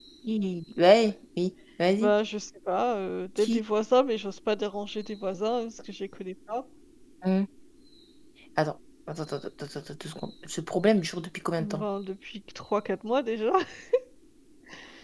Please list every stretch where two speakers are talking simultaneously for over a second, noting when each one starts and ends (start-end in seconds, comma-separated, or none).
none